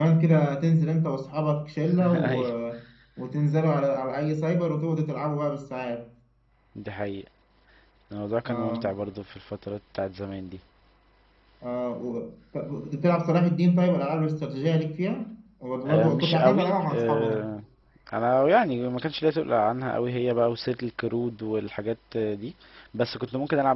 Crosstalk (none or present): present